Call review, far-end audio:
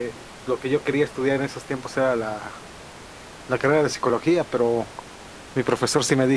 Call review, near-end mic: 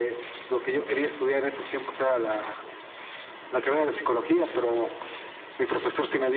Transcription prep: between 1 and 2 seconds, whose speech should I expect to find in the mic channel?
echo only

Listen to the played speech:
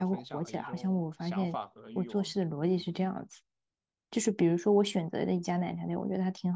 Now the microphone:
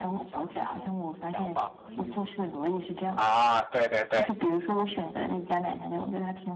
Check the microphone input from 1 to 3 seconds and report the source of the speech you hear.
echo only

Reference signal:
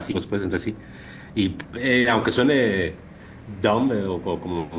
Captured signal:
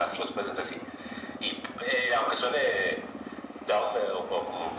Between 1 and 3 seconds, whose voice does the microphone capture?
echo only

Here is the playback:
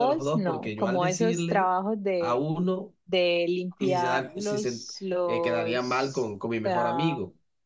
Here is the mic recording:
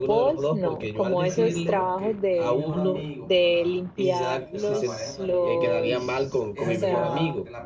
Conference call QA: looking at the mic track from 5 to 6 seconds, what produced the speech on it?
both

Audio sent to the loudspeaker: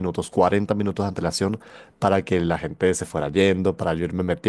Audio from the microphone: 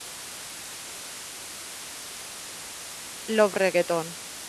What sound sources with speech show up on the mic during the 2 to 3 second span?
neither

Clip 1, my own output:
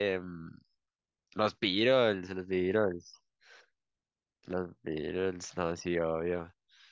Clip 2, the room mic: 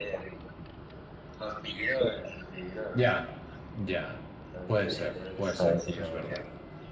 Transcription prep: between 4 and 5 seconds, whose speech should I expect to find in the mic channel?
both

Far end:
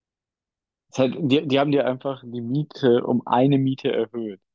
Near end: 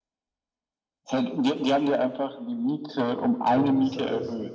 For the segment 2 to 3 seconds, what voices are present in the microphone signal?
echo only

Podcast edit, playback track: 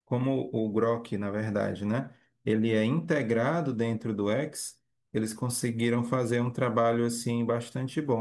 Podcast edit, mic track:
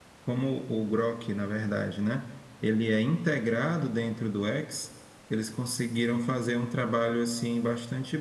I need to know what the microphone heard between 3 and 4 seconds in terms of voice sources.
echo only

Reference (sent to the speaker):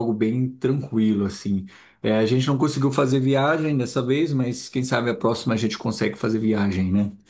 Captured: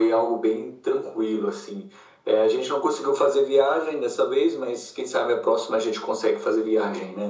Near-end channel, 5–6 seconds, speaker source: echo only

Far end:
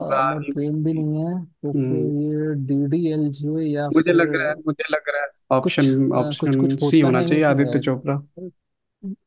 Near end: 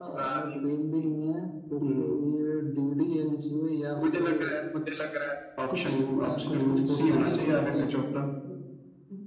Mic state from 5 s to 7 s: echo only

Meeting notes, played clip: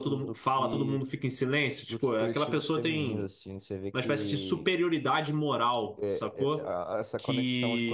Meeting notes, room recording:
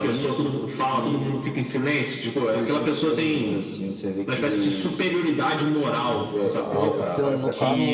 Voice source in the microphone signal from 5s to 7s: both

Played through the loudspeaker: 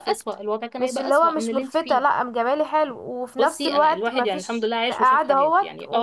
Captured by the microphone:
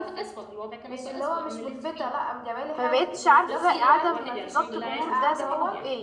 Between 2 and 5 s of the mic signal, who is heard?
both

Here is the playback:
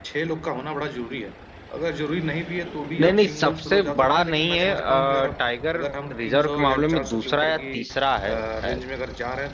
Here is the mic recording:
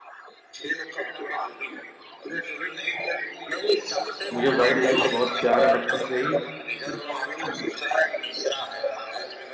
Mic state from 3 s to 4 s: echo only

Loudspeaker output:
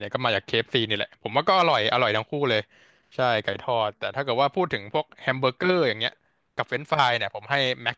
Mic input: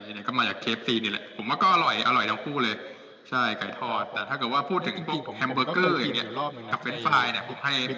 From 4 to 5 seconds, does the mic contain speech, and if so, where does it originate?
both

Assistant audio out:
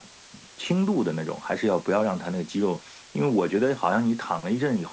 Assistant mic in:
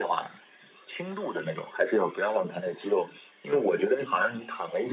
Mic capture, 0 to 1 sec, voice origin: echo only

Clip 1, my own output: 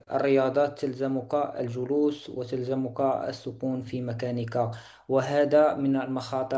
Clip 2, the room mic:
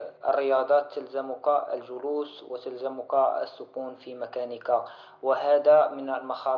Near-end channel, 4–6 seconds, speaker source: echo only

